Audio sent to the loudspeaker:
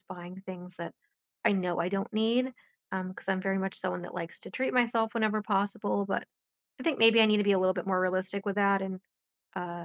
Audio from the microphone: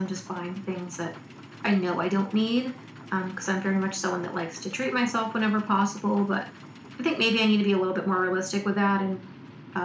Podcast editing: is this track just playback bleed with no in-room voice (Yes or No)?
Yes